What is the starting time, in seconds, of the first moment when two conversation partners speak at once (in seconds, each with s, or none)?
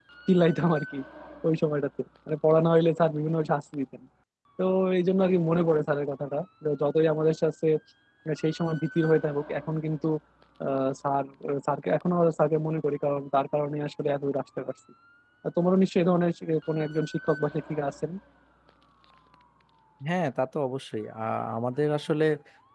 none